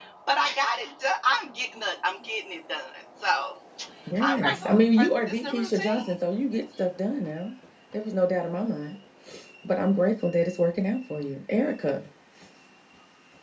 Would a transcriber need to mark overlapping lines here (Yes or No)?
Yes